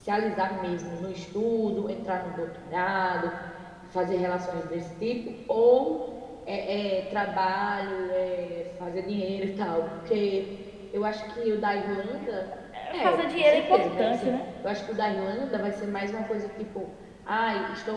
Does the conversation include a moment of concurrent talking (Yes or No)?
Yes